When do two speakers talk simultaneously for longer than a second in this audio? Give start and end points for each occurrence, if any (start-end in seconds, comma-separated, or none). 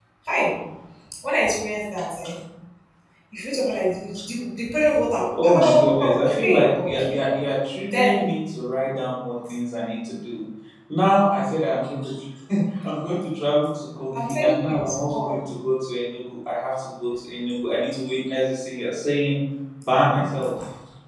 5.4-7.0, 14.2-15.4